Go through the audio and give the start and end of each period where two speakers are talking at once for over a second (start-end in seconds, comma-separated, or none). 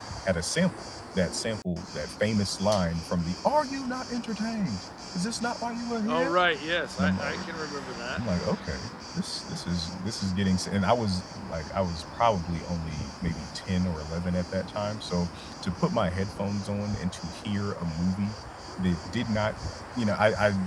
none